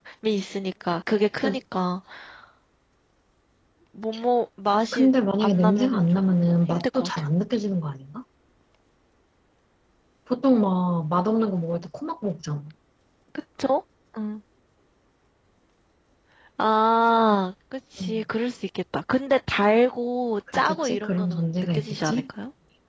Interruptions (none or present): present